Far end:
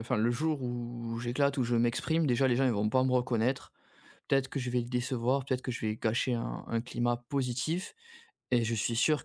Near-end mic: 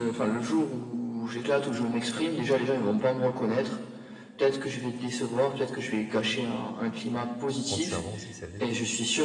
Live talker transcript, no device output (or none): en te servant aussi de celles des autres,